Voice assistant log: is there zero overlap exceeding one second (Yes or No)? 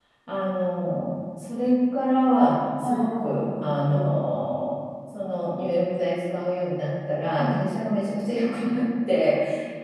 No